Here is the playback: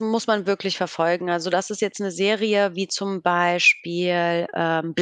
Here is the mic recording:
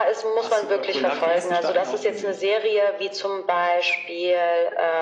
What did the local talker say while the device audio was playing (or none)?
Ah, super cool. Da habe ich die ersten Staffeln auch gesehen.